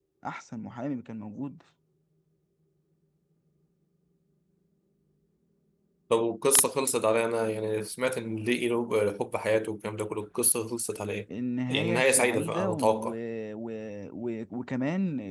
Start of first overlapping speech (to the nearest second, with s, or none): 12 s